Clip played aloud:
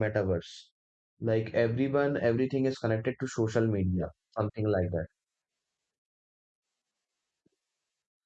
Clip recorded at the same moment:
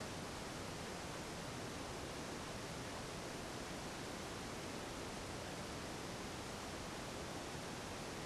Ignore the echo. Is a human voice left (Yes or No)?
No